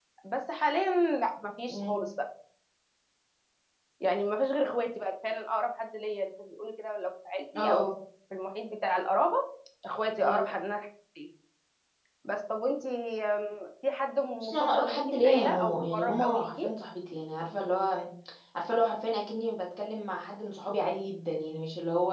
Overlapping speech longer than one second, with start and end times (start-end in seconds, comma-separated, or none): 14.4-16.7